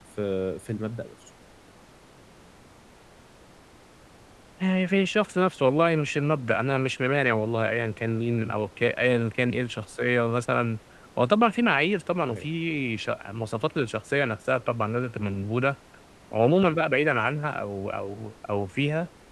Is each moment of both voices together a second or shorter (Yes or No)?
Yes